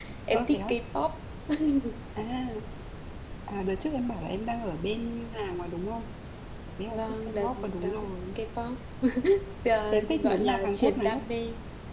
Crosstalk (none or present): present